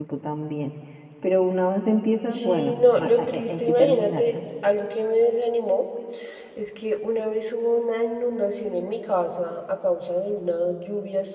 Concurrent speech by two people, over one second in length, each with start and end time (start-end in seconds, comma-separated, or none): 2.3-4.2